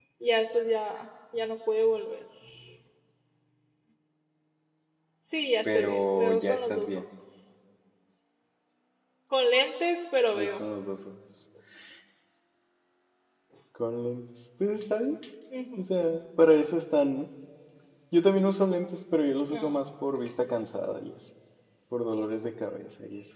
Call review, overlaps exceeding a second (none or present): present